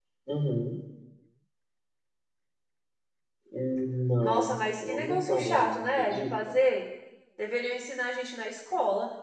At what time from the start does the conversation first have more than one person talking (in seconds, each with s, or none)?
4.2 s